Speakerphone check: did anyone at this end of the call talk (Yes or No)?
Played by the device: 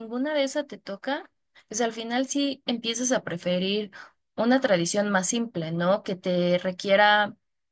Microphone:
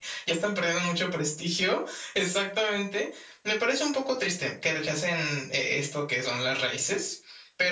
Yes